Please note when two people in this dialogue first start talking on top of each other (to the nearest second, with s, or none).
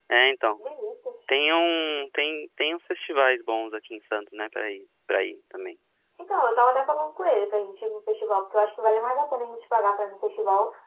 none